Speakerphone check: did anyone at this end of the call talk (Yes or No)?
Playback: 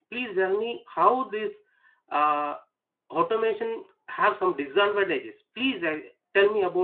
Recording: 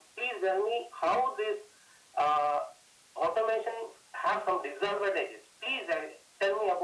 No